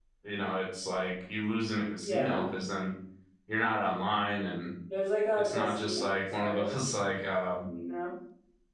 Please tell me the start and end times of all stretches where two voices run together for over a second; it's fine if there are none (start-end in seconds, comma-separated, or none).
5.4-6.7